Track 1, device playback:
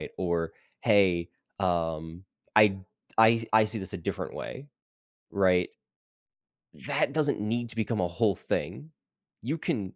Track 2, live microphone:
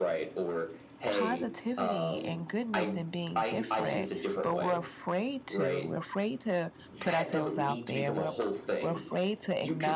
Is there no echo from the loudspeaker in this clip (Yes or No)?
No